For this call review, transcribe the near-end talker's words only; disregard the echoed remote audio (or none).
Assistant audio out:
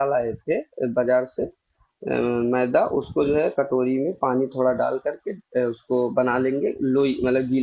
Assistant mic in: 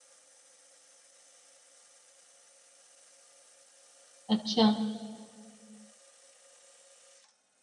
अच्छा